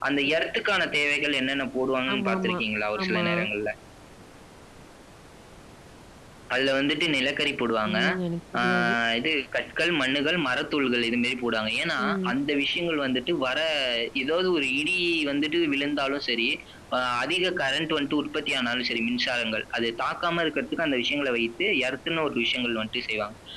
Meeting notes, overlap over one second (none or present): none